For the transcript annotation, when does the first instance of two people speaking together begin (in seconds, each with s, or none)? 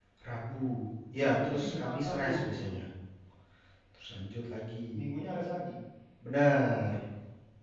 1.2 s